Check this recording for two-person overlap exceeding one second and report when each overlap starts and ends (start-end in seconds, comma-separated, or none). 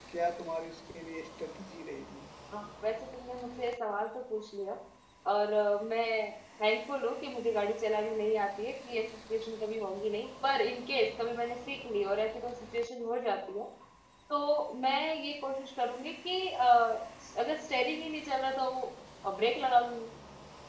none